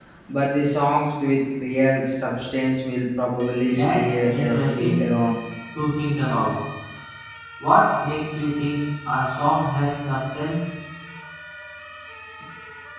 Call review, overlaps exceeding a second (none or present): present